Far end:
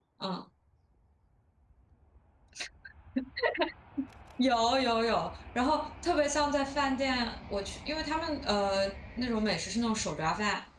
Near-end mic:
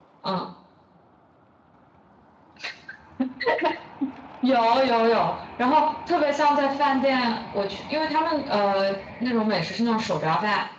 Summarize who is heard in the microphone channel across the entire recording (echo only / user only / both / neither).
echo only